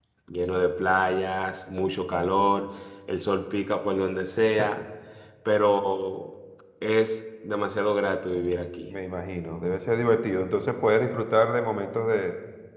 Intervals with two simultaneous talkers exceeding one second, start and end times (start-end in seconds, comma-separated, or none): none